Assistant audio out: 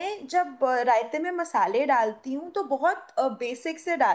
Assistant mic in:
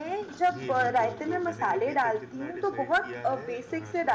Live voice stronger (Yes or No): No